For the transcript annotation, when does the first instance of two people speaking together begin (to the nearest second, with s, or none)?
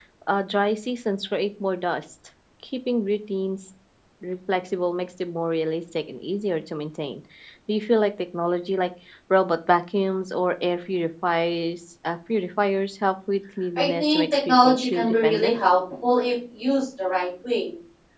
14 s